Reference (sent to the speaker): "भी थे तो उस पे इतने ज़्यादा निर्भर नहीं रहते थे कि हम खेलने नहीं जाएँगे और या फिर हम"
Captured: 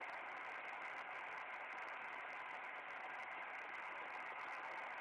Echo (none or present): none